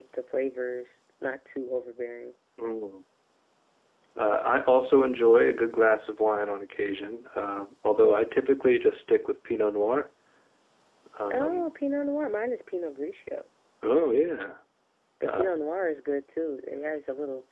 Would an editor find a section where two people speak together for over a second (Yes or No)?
No